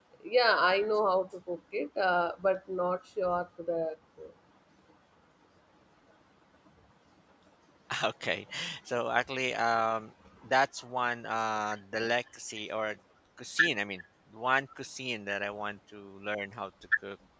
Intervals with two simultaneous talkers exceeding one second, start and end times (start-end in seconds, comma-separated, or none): none